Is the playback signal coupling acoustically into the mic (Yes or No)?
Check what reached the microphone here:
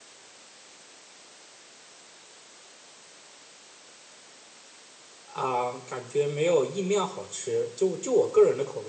No